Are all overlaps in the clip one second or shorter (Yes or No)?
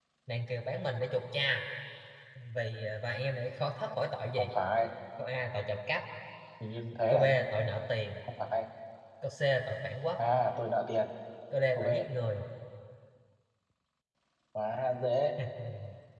Yes